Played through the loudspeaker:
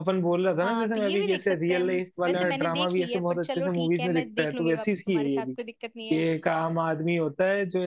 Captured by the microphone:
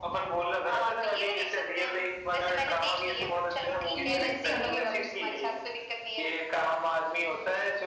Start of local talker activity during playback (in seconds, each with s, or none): 3.9 s